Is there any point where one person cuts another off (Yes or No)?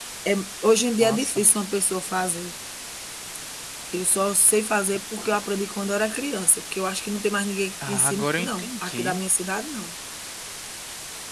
Yes